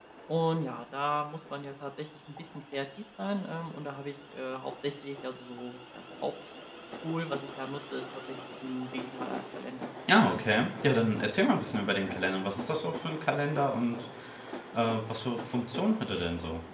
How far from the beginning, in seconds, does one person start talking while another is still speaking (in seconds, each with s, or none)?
none